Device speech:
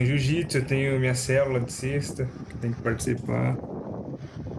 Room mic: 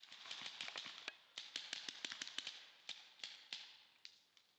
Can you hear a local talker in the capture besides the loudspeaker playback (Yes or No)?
No